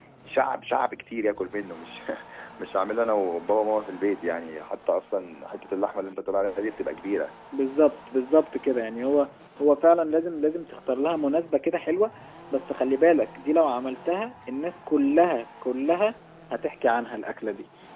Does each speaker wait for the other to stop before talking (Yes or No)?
Yes